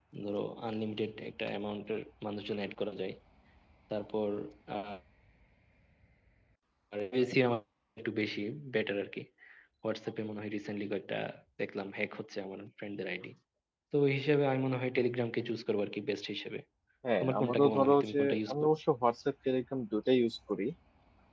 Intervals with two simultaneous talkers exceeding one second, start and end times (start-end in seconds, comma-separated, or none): 17.2-18.8